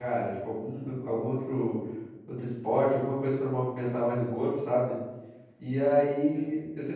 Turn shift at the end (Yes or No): No